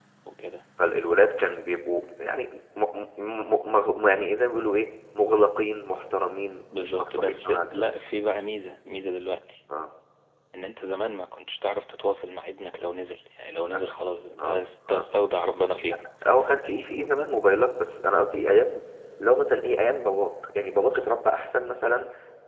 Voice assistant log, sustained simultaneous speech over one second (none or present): present